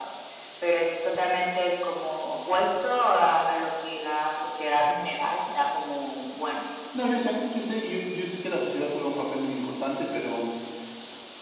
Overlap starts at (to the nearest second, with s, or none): none